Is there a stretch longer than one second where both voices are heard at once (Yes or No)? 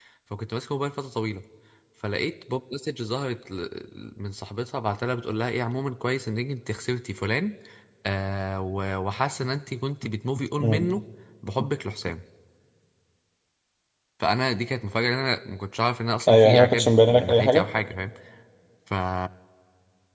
Yes